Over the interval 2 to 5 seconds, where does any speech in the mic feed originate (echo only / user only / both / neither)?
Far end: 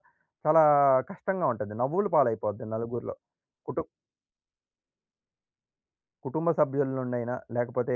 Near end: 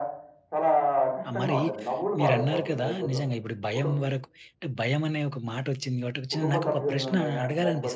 both